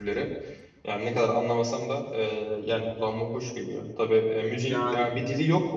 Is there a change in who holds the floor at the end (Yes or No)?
No